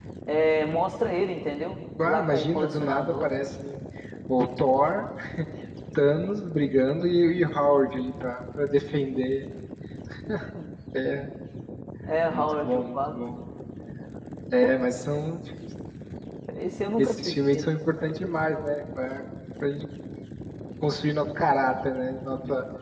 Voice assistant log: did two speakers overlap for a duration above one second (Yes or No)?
Yes